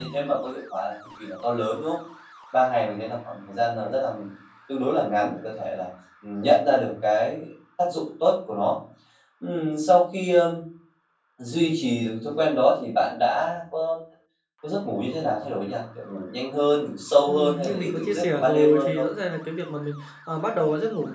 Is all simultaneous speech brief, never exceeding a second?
No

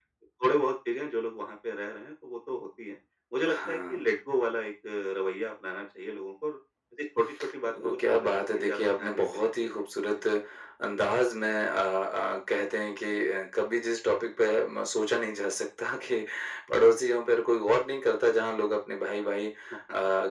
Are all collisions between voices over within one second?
No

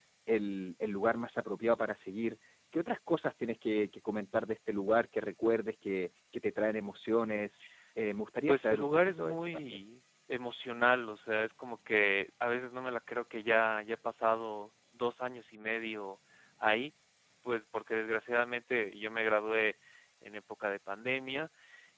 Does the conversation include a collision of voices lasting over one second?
Yes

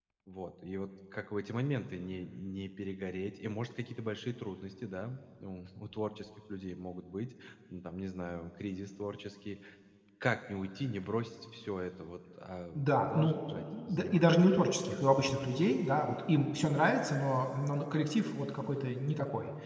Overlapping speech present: Yes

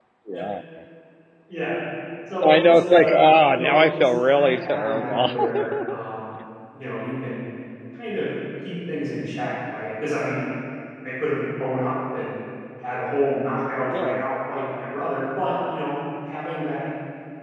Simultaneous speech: Yes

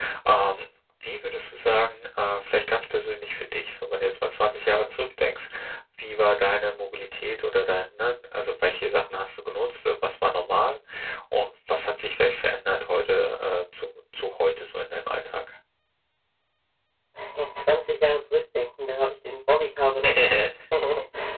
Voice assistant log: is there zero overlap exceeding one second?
Yes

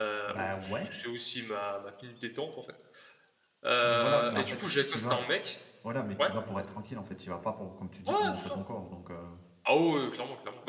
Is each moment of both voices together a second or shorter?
No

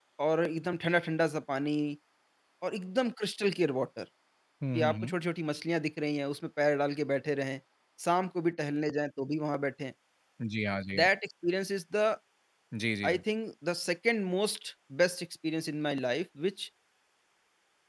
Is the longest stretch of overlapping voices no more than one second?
Yes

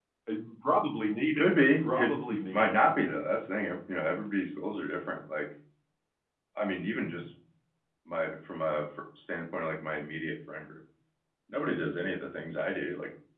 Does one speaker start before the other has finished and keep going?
Yes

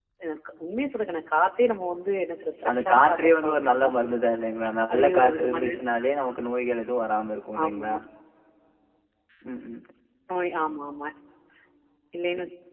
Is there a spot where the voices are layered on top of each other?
Yes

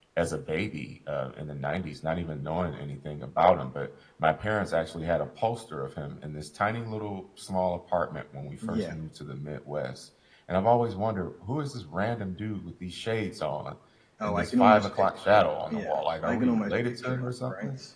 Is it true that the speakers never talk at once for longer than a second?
No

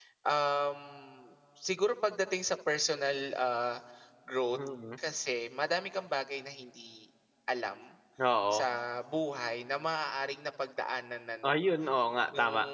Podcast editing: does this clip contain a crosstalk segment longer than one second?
No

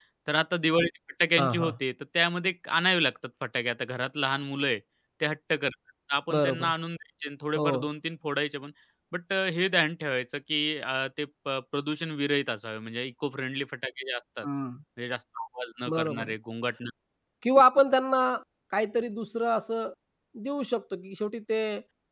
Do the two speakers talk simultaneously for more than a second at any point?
No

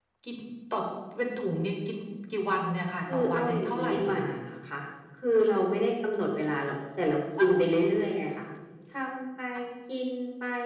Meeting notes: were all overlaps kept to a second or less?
No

